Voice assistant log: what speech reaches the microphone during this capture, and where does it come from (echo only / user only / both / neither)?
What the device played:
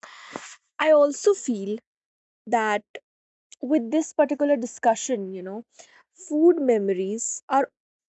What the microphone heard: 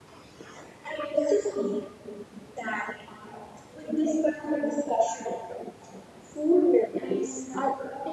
both